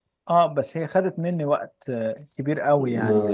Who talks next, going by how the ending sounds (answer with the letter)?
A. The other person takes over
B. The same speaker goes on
A